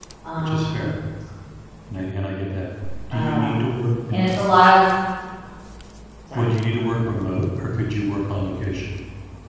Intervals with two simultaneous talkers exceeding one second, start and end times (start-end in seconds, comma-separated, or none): none